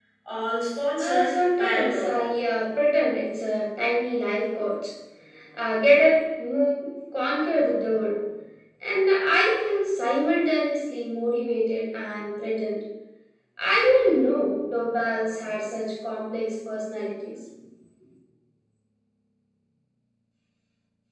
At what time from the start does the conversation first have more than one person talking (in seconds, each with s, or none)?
1.0 s